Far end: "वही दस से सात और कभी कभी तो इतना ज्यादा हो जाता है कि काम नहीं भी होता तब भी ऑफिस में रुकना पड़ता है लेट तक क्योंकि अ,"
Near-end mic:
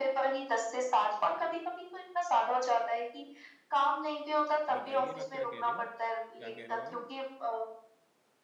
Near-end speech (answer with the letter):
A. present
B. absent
A